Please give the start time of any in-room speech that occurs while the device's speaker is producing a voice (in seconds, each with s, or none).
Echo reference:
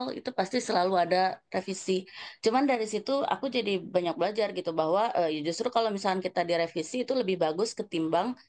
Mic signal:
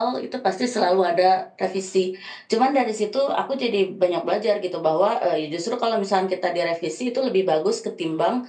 none